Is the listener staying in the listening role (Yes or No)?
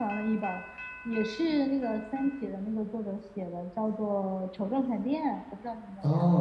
No